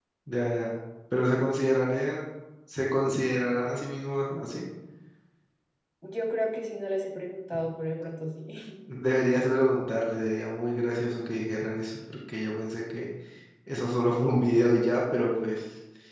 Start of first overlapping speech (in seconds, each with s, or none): none